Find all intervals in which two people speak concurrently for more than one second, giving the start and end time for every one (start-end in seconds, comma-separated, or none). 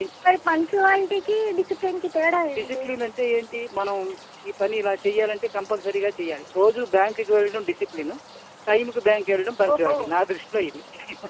none